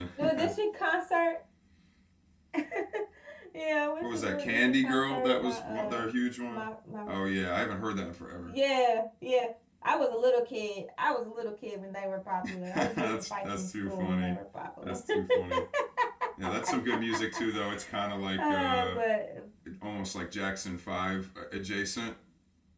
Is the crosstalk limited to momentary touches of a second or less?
No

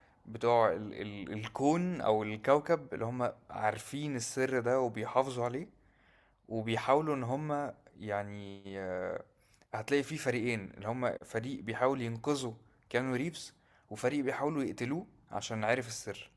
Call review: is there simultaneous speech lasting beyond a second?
No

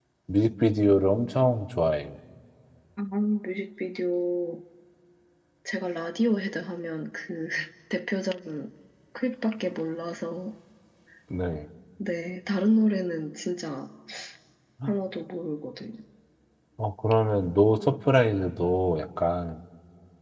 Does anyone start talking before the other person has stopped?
No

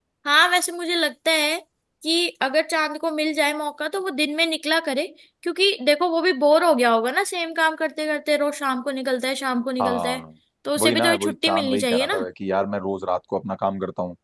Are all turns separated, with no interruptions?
No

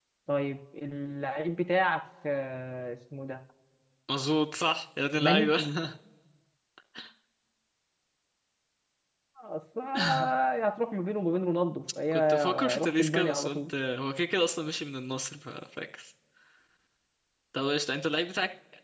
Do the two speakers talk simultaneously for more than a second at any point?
Yes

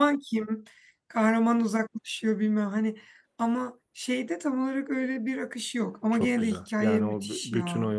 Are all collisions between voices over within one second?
No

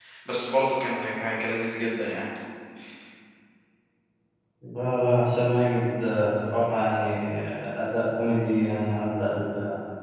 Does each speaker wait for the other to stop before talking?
Yes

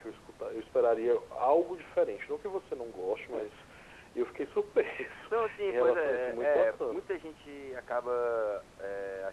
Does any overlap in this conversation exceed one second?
Yes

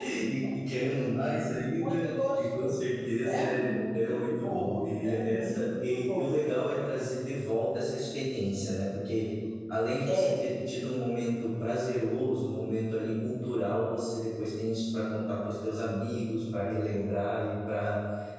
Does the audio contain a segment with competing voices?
Yes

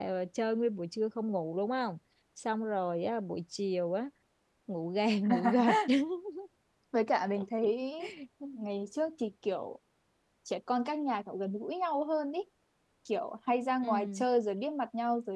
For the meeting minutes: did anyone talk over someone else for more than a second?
No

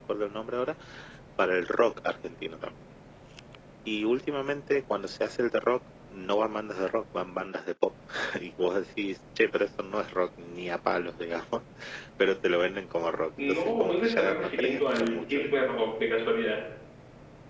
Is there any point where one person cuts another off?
Yes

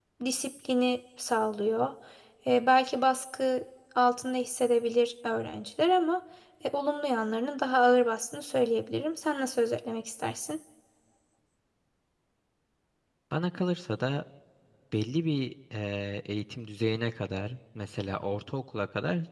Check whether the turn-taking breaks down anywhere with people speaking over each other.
No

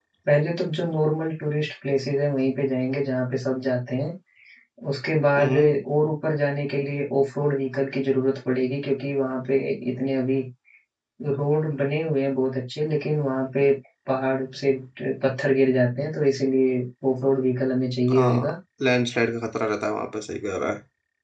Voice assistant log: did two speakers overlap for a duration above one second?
No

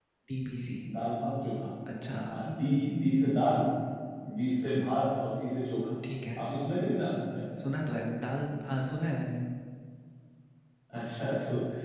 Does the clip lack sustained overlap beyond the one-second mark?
Yes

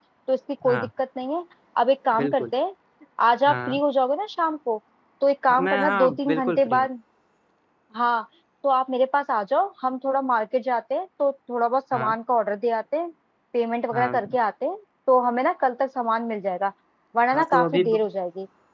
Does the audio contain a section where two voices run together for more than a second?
Yes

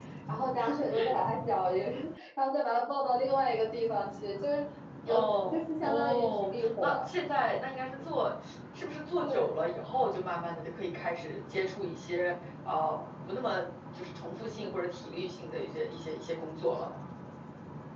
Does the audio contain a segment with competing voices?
Yes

